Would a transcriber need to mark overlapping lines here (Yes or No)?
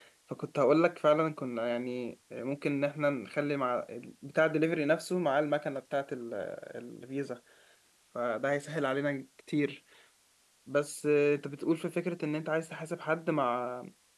No